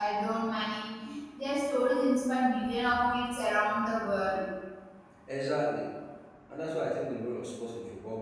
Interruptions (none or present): none